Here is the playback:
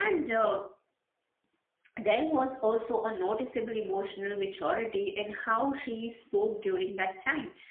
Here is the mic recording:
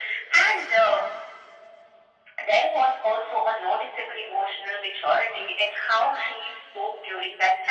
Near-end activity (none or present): none